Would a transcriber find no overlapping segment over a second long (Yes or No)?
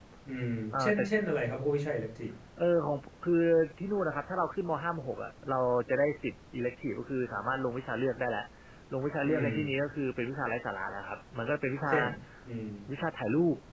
Yes